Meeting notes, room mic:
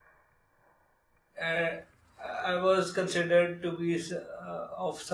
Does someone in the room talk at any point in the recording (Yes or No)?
Yes